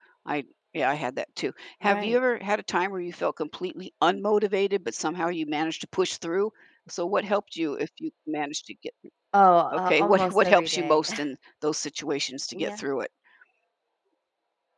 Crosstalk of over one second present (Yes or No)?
Yes